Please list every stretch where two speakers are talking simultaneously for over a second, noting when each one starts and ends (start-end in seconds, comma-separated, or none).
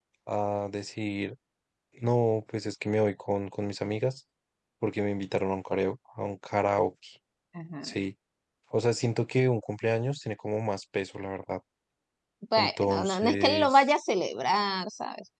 12.6-13.8